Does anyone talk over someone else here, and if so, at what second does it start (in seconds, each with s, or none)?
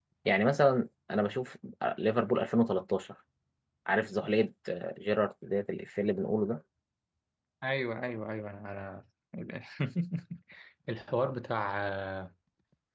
none